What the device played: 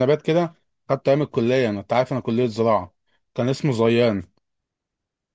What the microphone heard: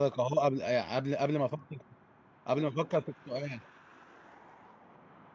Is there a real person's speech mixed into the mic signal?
Yes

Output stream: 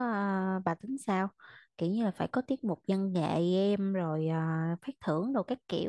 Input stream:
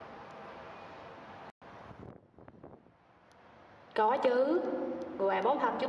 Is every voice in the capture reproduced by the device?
No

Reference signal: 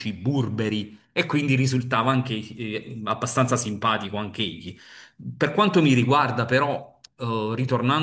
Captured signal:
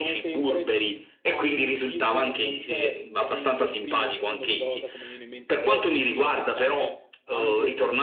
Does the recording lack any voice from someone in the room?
No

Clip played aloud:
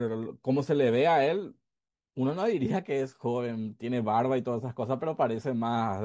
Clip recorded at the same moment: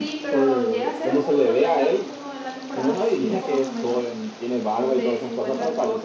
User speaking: Yes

